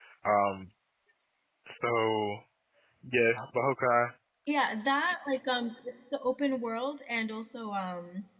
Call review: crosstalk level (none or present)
none